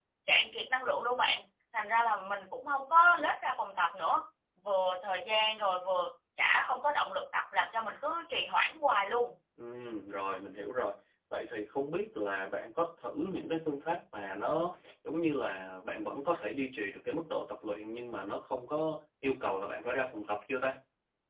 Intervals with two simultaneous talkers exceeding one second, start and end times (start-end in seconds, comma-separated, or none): none